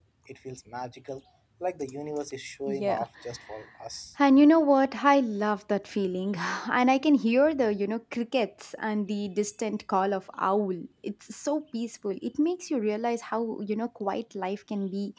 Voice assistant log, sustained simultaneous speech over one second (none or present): none